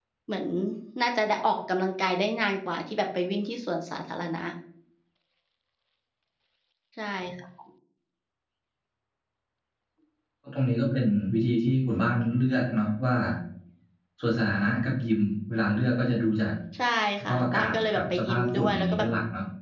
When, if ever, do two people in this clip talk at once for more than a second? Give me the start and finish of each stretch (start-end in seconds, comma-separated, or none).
17.2-19.1